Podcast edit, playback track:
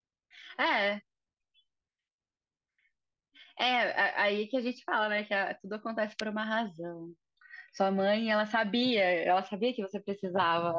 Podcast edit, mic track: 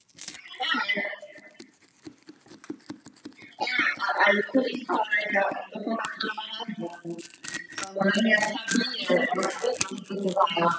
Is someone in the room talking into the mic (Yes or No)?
No